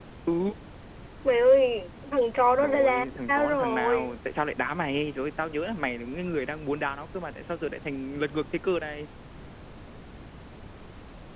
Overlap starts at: 2.5 s

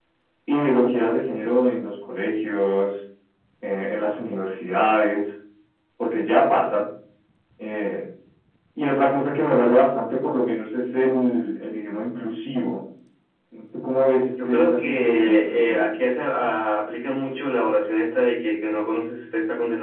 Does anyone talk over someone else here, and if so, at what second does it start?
14.4 s

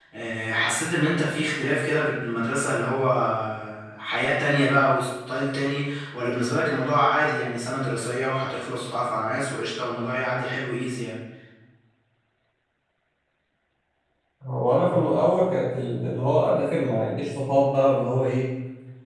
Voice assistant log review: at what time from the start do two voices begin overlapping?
none

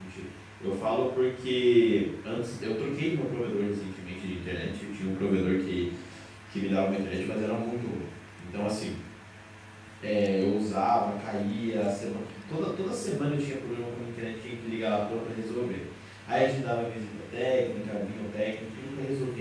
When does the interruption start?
none

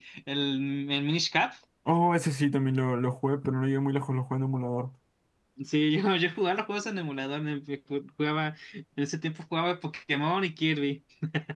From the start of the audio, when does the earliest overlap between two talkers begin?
none

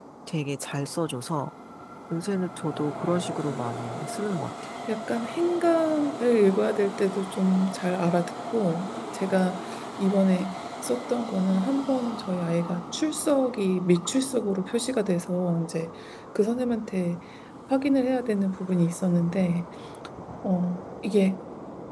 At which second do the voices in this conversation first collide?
none

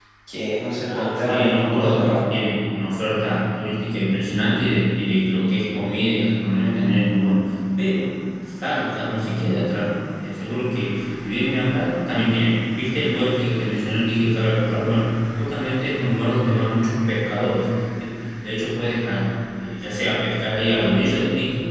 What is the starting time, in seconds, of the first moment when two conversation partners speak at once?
0.8 s

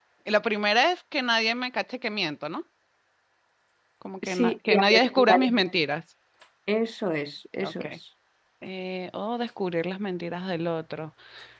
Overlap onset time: 4.2 s

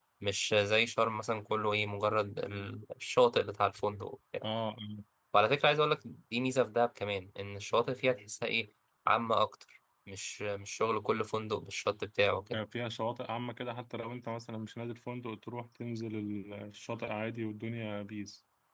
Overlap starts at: none

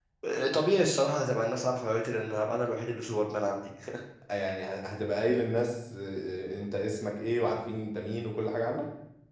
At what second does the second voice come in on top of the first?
none

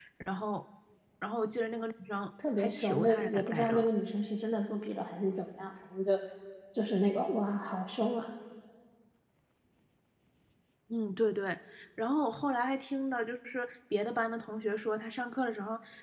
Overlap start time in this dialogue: 2.4 s

